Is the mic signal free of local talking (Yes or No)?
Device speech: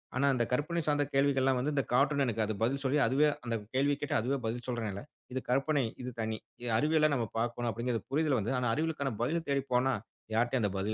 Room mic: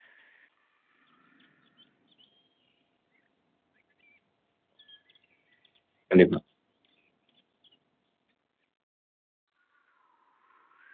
No